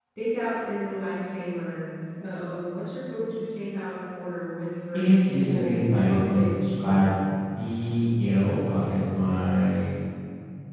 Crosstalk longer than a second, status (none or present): present